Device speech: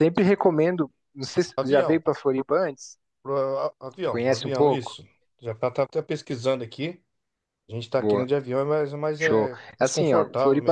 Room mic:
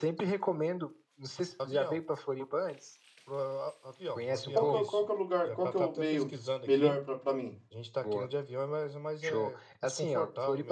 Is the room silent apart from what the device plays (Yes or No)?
No